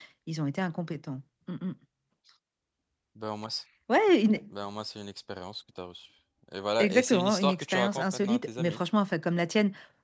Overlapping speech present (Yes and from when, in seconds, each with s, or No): Yes, from 6.8 s